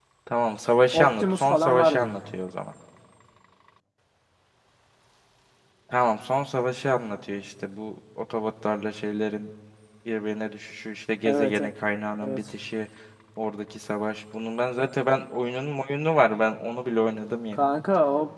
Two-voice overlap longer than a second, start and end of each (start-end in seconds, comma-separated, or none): 0.9-2.3